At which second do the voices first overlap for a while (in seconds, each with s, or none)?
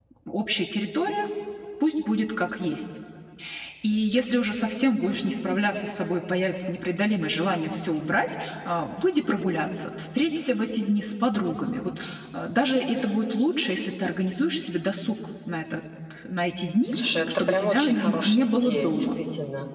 17.4 s